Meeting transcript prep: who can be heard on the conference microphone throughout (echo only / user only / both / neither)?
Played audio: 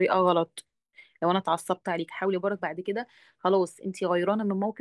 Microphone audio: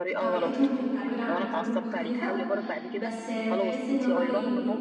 both